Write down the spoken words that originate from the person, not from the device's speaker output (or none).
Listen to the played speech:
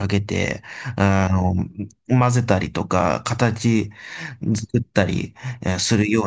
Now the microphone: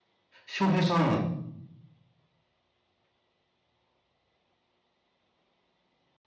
翔平さ